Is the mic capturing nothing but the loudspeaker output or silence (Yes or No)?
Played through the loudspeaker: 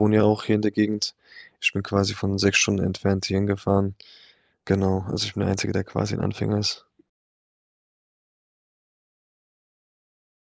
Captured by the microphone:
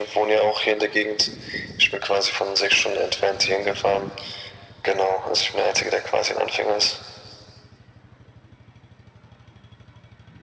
Yes